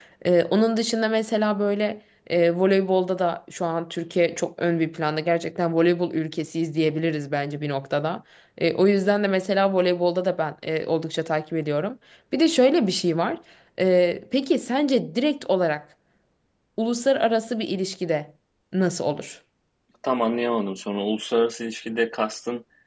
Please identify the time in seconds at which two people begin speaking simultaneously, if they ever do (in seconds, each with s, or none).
none